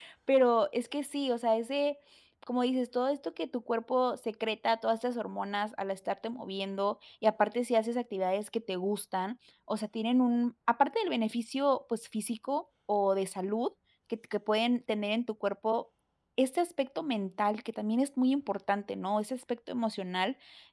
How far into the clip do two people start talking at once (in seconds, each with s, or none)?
none